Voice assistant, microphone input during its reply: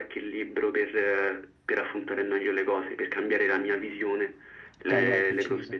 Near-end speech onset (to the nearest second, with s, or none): 5 s